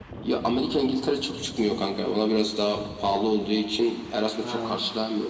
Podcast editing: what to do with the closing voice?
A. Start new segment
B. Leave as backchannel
B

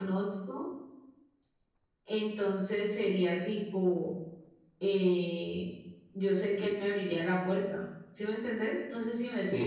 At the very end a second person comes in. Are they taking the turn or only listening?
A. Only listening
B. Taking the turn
B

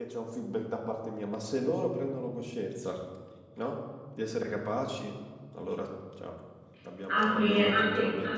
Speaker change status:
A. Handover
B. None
A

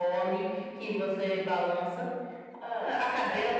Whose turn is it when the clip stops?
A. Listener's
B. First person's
A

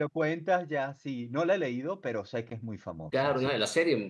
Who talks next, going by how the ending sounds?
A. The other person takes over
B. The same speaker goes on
A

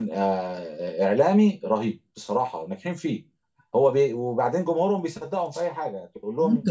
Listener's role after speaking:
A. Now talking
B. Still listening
A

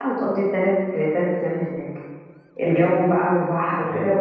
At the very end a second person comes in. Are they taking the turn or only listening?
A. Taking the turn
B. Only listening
B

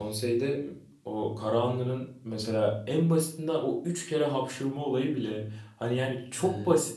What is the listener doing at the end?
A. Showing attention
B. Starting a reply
A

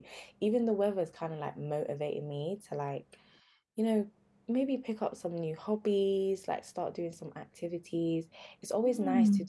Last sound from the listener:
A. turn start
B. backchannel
B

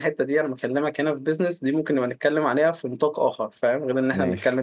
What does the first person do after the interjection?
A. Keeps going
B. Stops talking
A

